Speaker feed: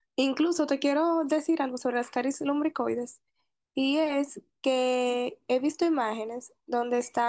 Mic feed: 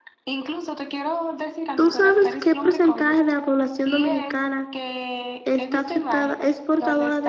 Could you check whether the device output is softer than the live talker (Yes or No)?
Yes